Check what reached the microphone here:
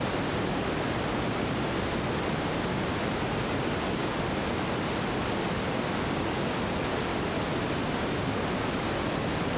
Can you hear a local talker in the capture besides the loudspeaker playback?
No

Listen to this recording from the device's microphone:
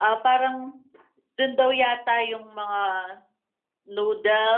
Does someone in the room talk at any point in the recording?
No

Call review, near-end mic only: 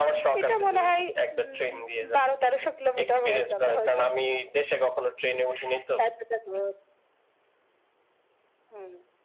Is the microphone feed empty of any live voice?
Yes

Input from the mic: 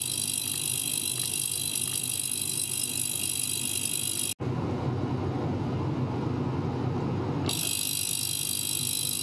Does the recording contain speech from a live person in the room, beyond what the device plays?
No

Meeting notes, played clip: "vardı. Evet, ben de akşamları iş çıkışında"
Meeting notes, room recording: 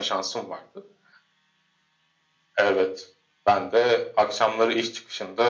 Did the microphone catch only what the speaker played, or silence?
Yes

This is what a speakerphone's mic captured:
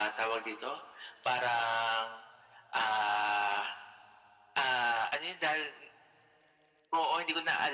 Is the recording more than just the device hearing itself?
No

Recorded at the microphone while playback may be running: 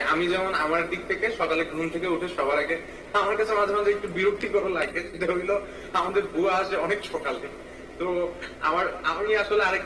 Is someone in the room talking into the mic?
No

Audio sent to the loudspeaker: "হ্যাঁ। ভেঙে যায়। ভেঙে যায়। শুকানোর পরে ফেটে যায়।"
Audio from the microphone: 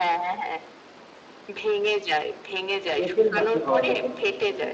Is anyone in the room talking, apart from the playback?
Yes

